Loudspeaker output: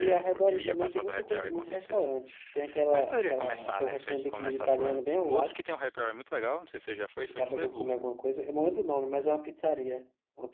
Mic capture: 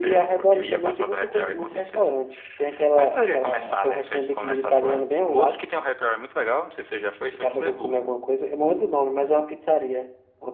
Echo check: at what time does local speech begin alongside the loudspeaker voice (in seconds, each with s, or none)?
none